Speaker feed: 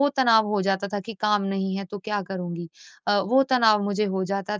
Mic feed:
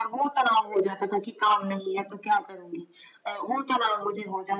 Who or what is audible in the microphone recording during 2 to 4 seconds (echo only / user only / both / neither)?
echo only